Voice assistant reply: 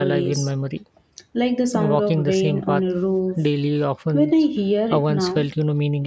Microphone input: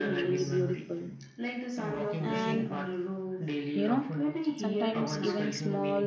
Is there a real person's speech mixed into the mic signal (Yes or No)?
Yes